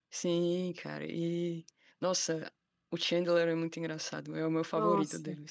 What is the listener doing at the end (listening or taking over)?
taking over